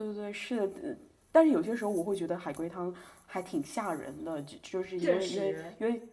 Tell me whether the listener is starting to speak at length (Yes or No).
No